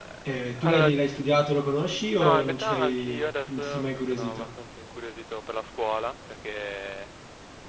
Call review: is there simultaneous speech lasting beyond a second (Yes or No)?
Yes